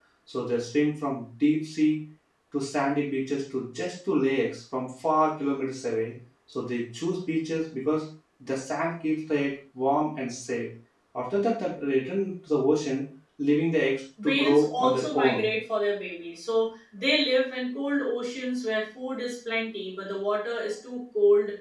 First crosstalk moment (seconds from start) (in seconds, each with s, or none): 14.2 s